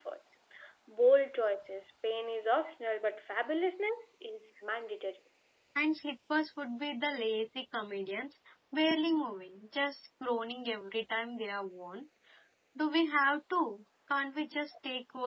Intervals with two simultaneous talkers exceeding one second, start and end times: none

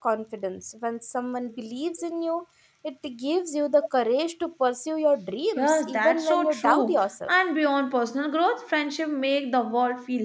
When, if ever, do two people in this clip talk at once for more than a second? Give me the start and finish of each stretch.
5.6-7.3

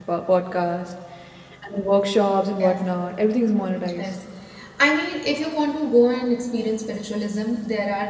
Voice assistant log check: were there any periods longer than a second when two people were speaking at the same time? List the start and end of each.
none

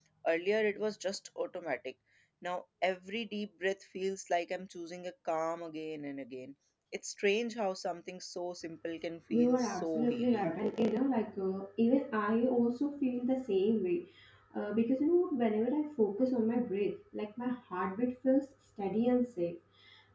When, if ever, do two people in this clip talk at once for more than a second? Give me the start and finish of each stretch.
9.3-10.6

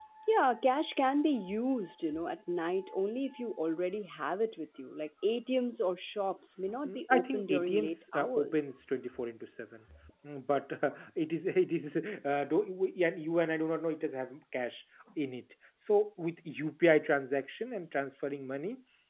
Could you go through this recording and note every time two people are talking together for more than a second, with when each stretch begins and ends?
6.8-8.7

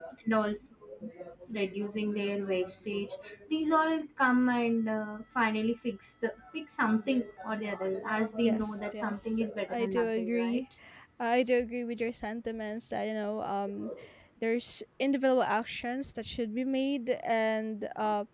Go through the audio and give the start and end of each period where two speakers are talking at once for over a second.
8.4-10.6

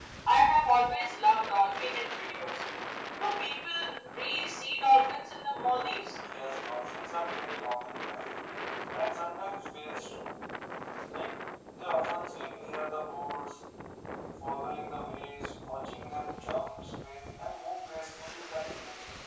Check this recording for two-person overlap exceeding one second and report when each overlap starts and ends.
none

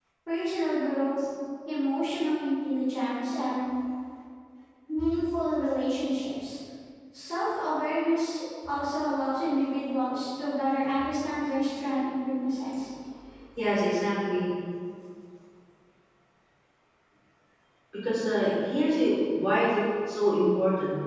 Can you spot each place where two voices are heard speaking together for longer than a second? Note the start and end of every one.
none

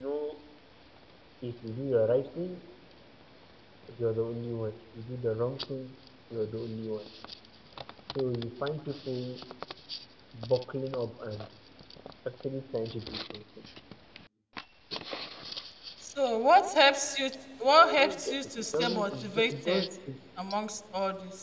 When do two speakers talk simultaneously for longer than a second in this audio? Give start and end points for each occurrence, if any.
17.8-19.9

